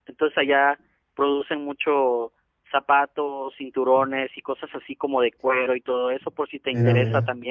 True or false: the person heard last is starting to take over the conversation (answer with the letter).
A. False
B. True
A